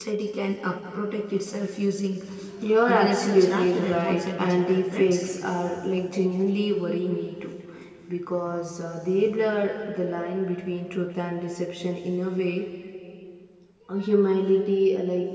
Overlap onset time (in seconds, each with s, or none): 2.9 s